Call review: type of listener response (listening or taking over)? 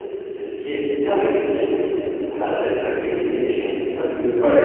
taking over